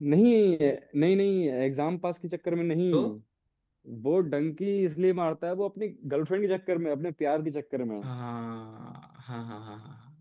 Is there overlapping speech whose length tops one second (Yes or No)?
No